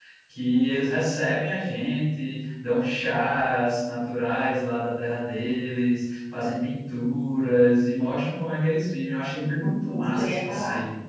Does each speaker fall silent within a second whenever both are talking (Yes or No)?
No